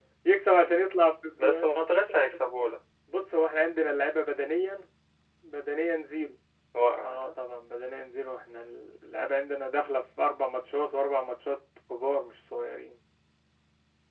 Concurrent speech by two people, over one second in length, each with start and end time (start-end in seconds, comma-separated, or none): none